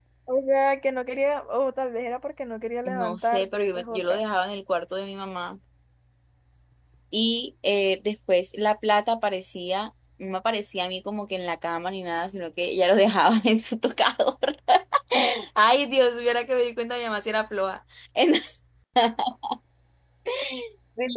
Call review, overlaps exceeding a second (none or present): present